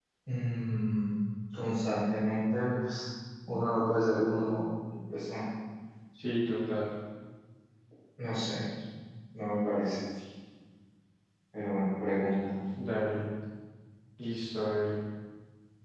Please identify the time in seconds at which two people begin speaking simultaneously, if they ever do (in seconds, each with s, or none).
none